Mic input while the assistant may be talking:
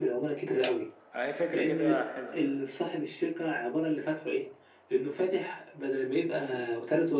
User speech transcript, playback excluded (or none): هي فكرة كده حلوة